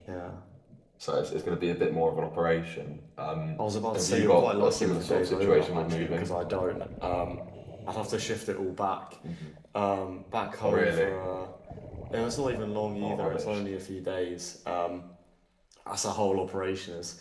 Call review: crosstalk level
present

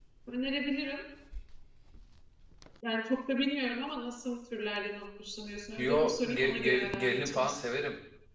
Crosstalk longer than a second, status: present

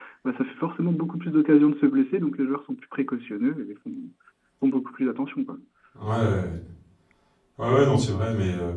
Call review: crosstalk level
none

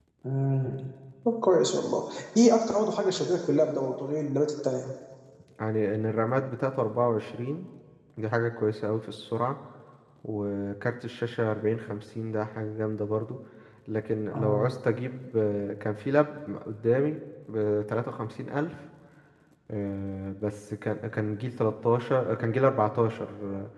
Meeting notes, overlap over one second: none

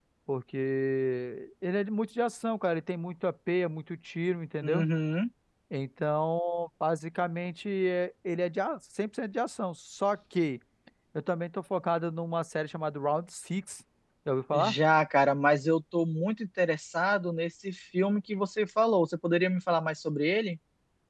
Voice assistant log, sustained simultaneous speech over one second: none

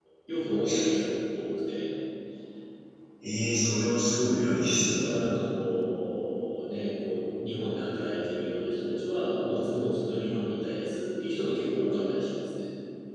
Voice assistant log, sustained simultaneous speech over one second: none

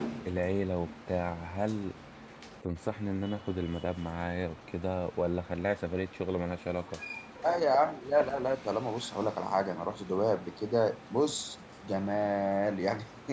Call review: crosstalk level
none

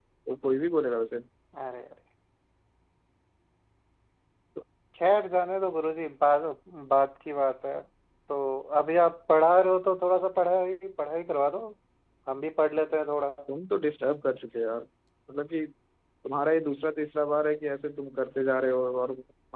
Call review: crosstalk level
none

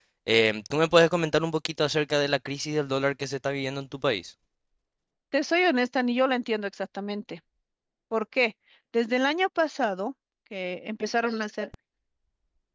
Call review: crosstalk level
none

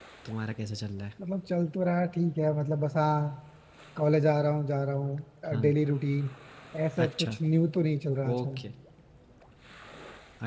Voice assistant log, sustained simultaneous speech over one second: none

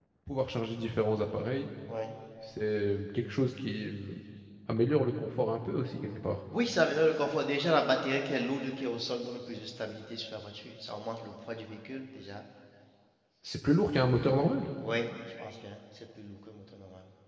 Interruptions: none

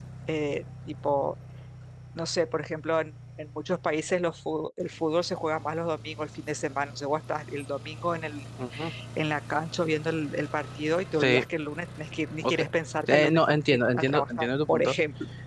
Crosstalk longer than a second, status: present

